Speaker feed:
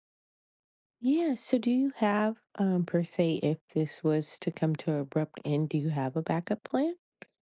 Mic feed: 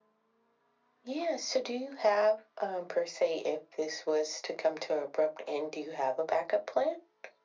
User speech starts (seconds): none

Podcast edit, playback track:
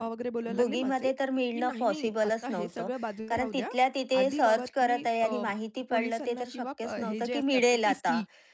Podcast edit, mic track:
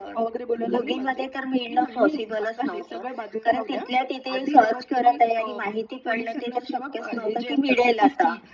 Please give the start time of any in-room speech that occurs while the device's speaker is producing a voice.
none

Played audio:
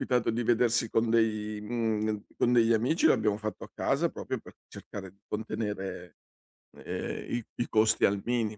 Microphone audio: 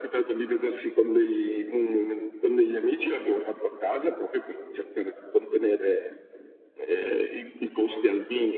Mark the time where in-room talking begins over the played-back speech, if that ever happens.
none

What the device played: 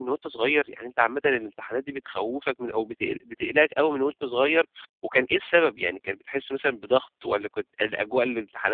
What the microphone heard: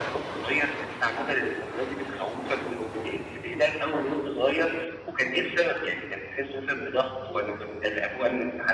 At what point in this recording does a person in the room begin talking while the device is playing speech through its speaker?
none

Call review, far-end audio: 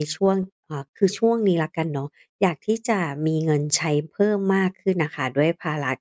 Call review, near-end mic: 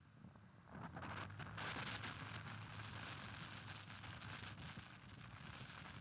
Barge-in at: none

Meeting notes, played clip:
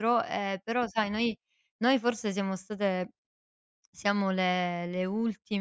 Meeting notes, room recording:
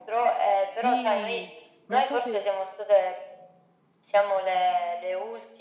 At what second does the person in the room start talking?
0.8 s

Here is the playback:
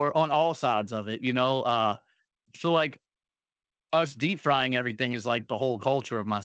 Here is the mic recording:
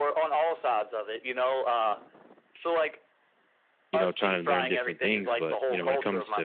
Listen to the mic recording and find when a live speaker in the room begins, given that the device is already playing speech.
3.9 s

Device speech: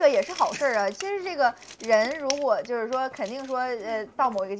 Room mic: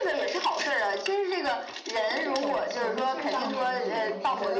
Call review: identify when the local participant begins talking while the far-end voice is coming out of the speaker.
2.1 s

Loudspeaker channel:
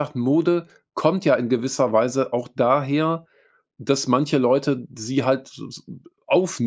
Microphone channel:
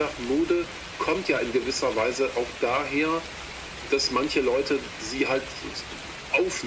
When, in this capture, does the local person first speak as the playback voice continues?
none

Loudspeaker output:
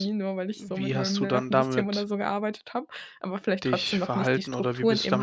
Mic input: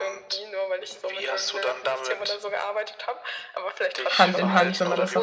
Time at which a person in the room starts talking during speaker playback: 4.1 s

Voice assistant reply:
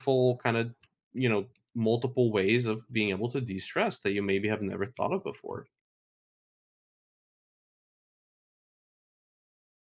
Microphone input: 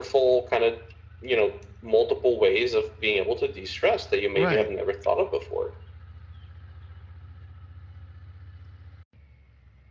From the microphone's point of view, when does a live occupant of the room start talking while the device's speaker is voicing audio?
4.3 s

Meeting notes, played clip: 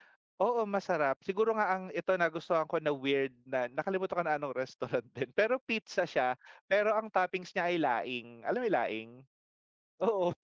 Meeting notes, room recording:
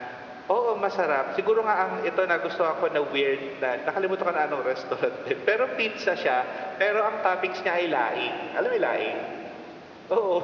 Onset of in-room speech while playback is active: none

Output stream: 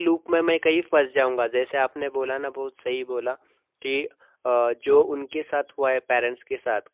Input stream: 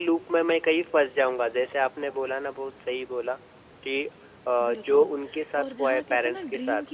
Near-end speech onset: 4.6 s

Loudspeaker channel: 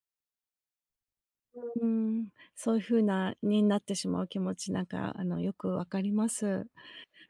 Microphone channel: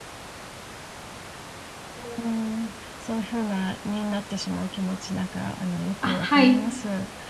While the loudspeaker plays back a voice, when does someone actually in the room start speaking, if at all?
6.0 s

